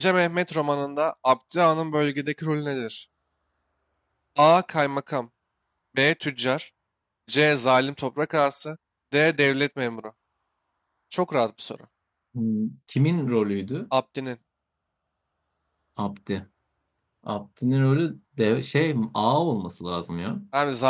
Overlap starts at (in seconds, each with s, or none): none